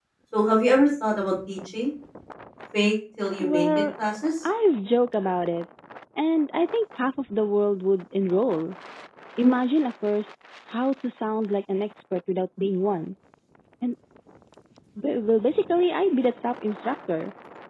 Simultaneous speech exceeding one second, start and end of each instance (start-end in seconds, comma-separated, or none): none